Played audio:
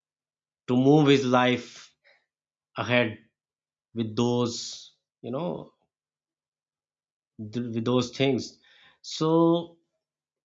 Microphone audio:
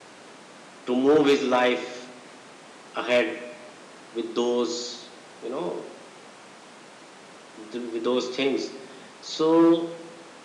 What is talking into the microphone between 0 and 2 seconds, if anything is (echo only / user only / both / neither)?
echo only